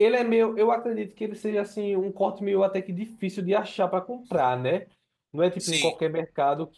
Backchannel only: Yes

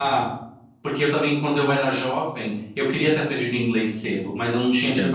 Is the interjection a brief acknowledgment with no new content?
Yes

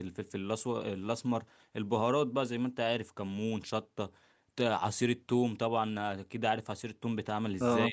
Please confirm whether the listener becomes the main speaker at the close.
No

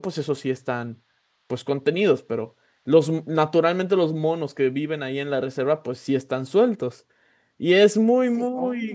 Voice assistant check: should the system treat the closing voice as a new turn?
No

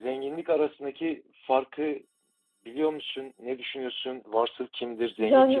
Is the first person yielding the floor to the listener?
Yes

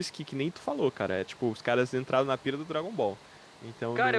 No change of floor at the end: No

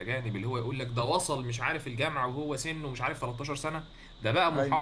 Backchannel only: Yes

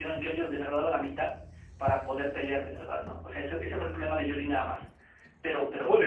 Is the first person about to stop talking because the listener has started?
Yes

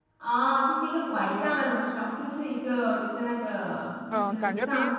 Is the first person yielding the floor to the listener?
Yes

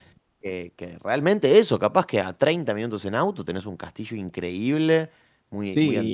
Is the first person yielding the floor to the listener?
Yes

